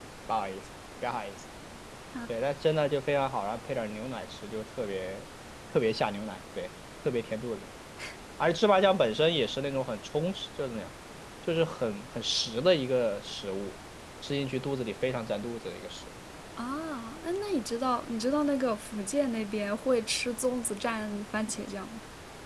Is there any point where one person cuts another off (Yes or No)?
No